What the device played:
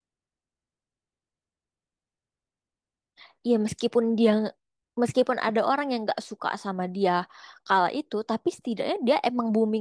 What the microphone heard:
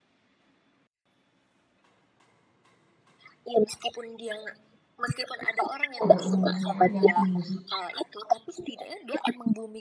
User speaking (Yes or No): Yes